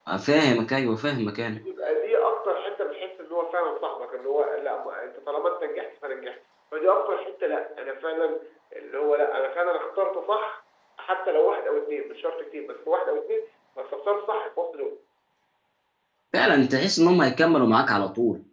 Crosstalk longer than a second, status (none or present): none